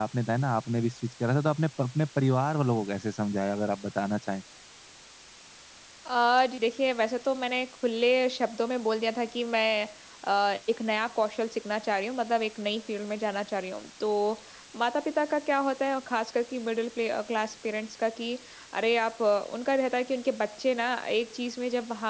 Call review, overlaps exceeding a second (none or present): none